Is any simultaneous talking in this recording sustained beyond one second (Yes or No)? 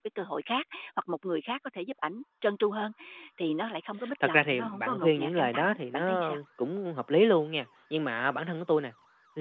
Yes